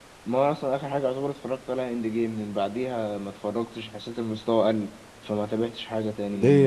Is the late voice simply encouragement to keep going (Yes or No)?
No